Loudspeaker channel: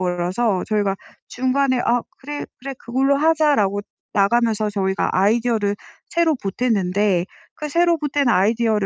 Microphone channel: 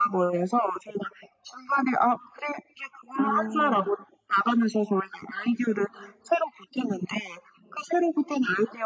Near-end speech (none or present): present